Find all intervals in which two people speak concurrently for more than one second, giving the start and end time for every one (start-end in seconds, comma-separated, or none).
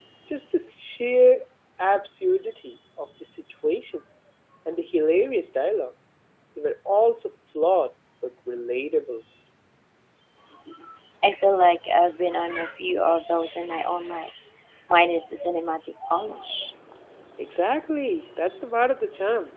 none